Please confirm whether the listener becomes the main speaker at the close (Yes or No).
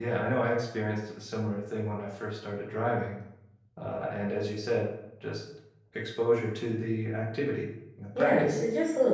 Yes